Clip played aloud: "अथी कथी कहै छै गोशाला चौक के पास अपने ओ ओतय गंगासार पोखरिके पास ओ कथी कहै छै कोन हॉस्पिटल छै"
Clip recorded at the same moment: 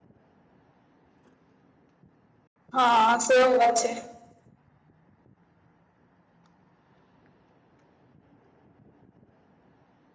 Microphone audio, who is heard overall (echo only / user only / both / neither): user only